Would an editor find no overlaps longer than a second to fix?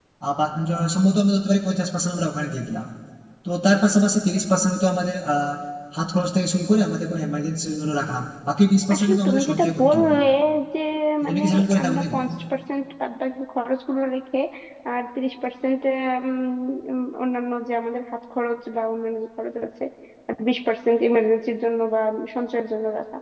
No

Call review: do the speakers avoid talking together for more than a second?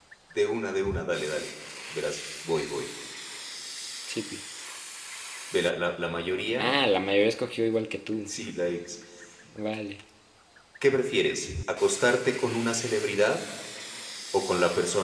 Yes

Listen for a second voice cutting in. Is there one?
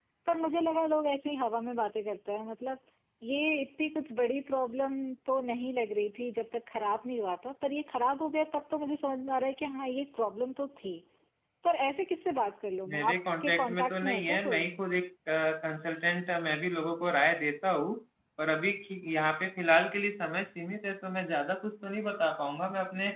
Yes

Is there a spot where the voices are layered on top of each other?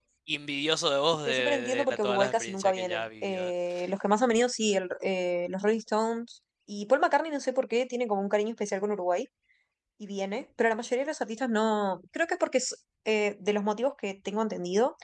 Yes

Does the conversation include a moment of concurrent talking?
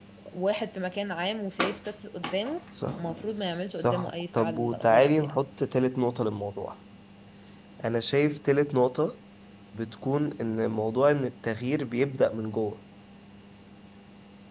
Yes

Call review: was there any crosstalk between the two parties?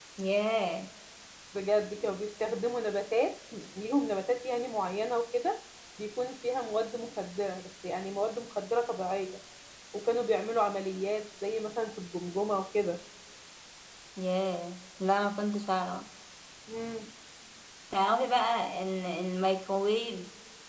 No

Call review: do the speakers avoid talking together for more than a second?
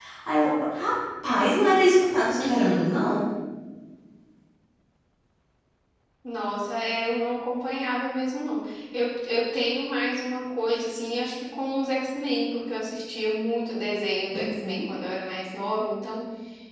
Yes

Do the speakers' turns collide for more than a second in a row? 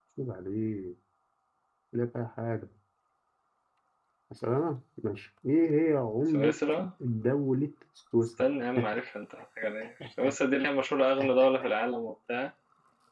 No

